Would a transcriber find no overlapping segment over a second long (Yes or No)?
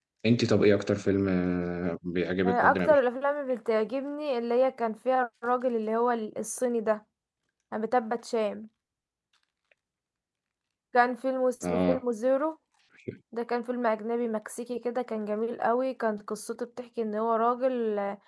Yes